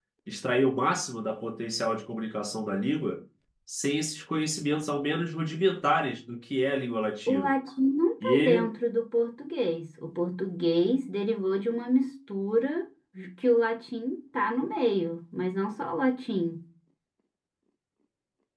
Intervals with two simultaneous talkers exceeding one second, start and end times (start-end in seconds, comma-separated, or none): none